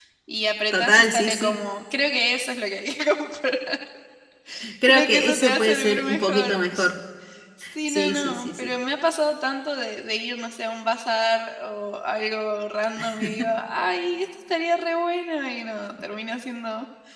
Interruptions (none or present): present